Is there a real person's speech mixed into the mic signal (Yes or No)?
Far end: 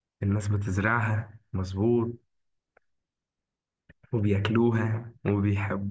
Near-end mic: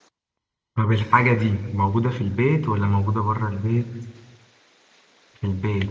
Yes